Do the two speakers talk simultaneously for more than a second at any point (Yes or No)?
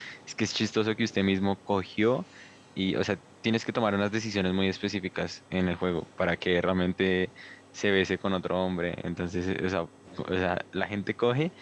No